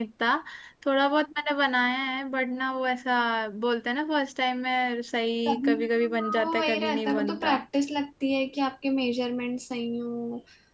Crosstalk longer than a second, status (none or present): present